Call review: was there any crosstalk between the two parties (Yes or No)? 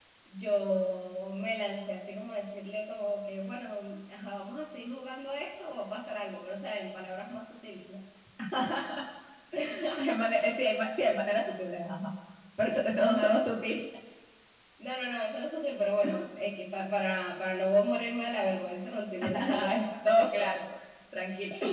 Yes